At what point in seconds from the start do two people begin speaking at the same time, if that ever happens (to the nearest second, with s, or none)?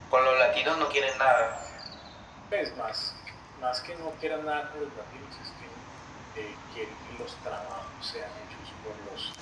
none